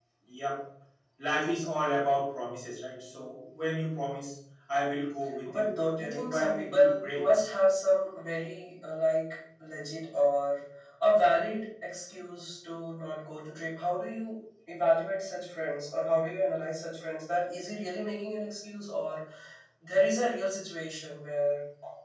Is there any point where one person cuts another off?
Yes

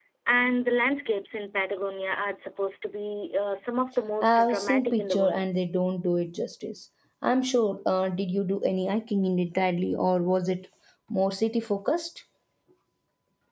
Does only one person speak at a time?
No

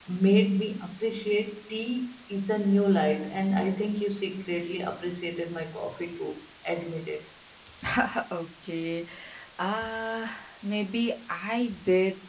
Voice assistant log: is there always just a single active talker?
Yes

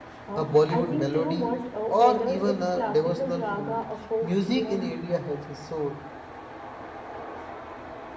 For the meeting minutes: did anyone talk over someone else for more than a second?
Yes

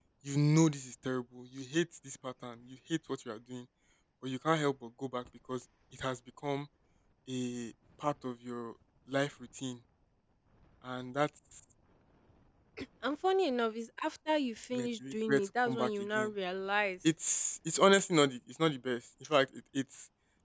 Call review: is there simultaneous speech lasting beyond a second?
Yes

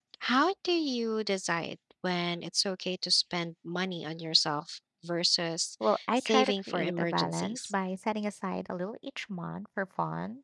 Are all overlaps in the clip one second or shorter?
No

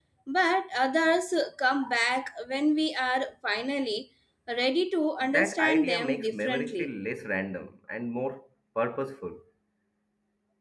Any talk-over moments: Yes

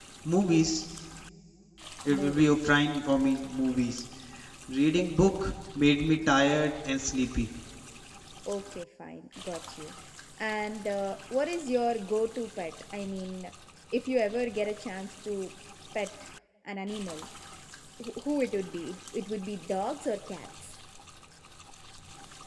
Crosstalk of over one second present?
No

